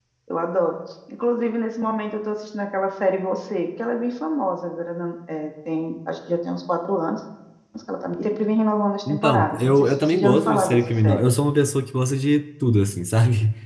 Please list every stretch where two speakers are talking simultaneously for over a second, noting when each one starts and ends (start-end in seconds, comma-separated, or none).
9.1-11.2